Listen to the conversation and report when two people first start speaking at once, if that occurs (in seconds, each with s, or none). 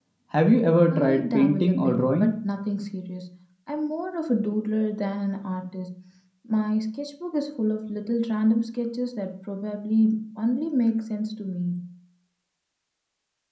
0.9 s